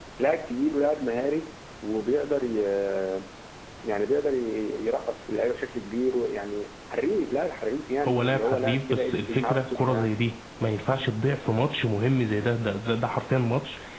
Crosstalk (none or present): present